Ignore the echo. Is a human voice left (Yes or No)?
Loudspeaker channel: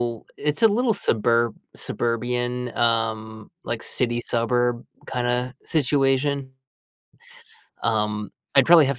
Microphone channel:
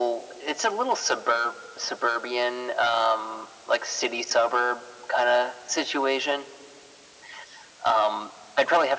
No